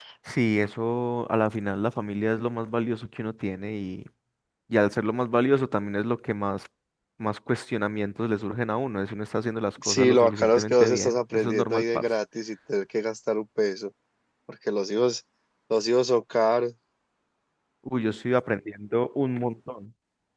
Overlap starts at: 9.8 s

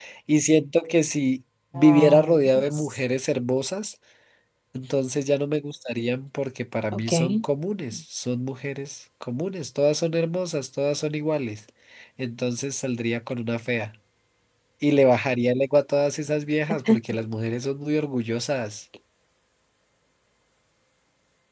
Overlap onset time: 1.8 s

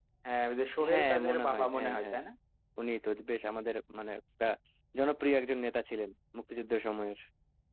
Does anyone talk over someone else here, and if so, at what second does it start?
0.9 s

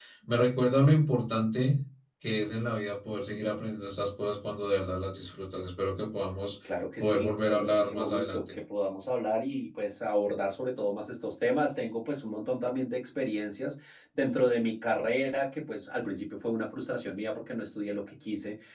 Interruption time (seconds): 7.0 s

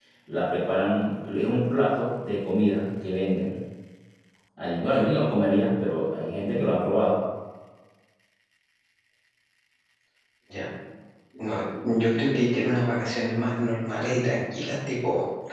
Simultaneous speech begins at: none

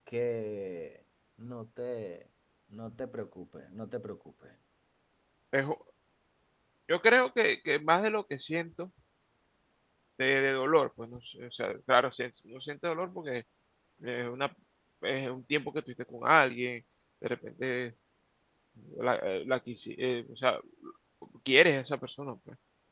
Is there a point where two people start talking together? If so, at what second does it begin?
none

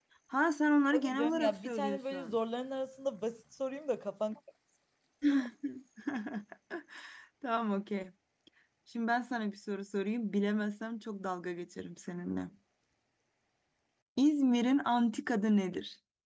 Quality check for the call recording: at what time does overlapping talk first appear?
0.9 s

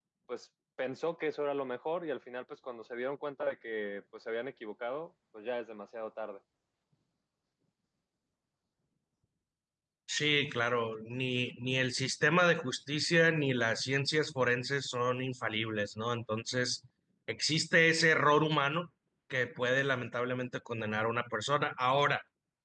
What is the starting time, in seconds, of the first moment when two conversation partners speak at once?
none

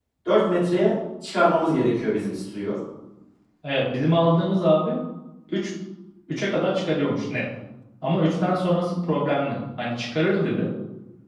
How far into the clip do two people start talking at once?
none

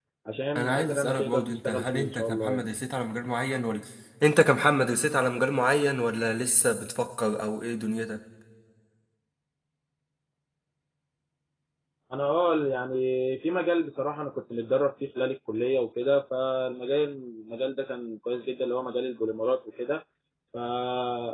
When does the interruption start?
0.6 s

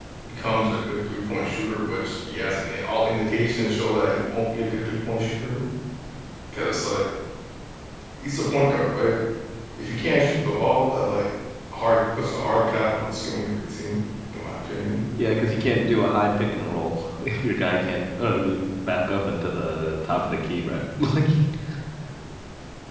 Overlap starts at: none

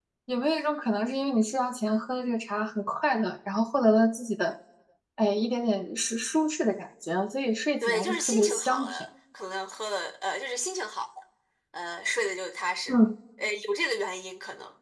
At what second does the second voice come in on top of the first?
7.8 s

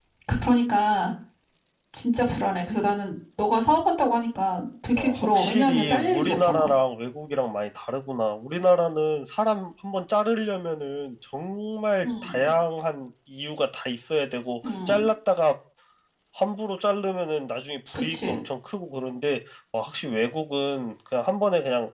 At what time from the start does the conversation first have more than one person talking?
5.0 s

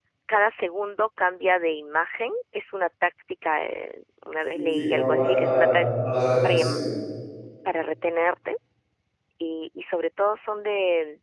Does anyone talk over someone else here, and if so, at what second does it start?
4.5 s

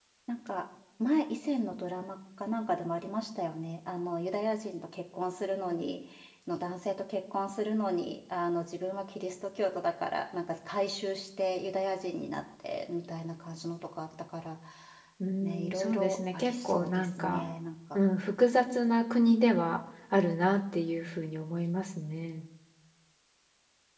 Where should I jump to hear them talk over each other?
15.4 s

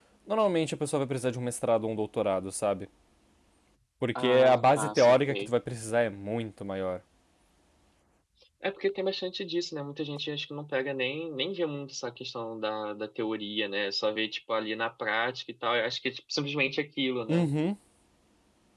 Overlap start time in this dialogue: 4.2 s

